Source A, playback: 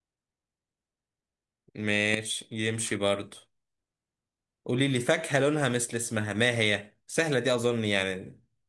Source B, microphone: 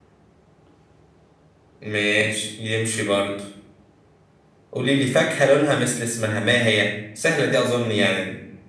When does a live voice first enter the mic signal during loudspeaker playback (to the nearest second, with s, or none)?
none